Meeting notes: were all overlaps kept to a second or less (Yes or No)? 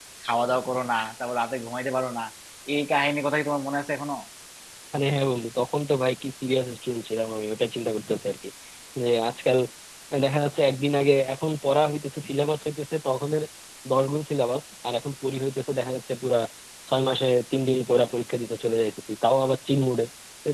Yes